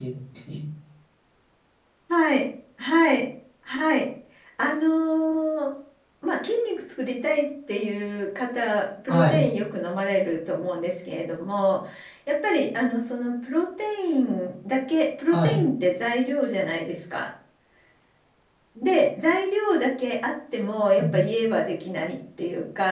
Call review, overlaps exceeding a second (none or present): none